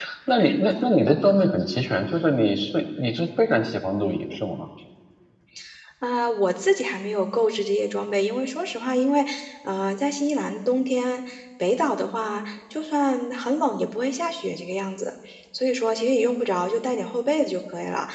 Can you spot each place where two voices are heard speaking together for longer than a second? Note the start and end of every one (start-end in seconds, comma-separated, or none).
none